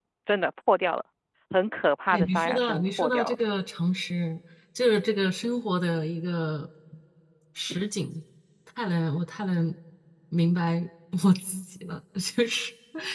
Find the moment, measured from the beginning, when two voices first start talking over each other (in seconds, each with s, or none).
2.1 s